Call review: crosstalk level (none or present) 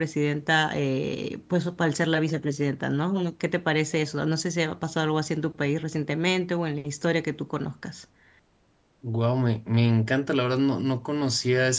none